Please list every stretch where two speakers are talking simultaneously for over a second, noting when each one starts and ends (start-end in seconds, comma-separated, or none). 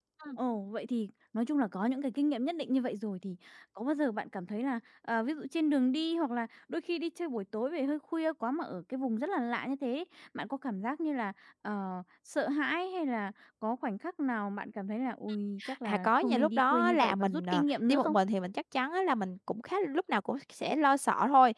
15.8-18.1